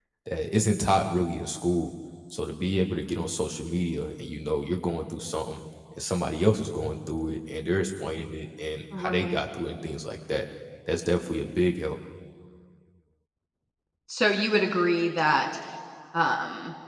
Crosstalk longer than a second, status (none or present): none